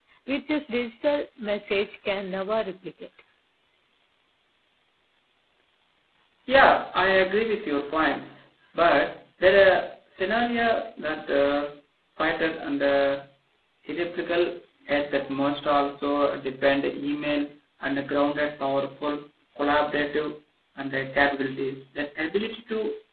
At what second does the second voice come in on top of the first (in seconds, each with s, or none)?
none